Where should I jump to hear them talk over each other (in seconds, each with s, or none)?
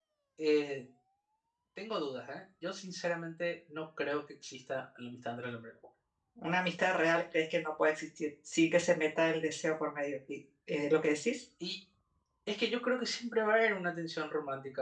none